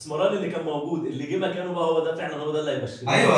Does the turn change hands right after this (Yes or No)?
Yes